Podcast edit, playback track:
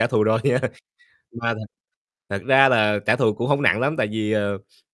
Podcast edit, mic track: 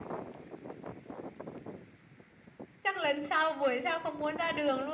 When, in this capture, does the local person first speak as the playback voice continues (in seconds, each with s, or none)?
2.8 s